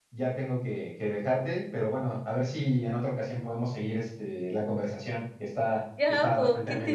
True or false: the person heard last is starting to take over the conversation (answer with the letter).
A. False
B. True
B